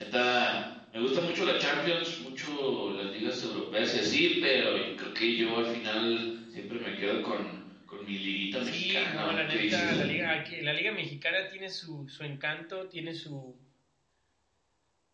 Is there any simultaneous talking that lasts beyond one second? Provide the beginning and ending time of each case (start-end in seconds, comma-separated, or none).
8.6-10.0